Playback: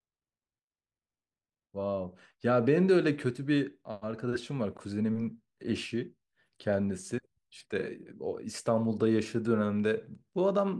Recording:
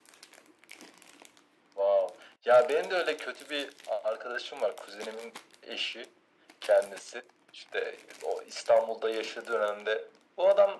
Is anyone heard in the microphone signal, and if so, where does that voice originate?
echo only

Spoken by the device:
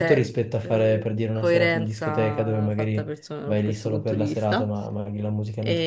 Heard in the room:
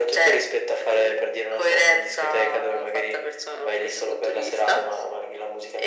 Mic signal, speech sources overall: echo only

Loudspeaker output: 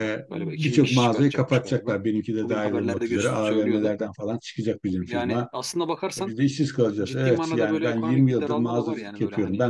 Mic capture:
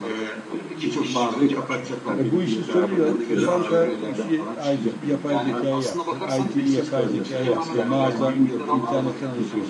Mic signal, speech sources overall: both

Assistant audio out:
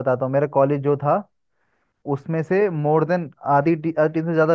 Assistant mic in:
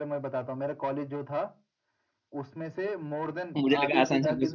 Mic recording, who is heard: both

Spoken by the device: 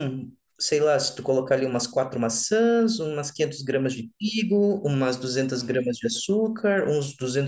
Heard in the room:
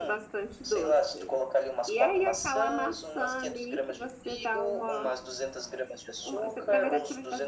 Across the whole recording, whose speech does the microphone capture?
both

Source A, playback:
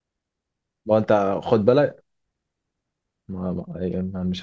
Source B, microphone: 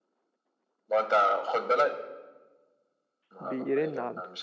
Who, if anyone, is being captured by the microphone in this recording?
both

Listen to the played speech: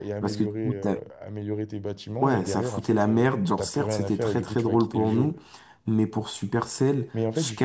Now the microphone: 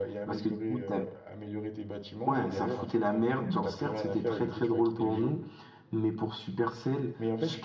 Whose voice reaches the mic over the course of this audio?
echo only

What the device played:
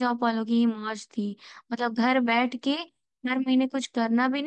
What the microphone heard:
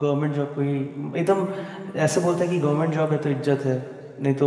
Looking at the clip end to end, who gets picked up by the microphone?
user only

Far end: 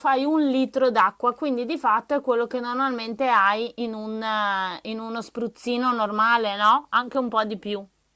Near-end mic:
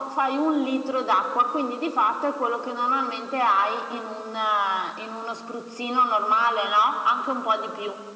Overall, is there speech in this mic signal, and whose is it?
echo only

